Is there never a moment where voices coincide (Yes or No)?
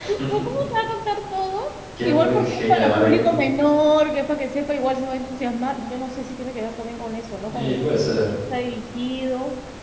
No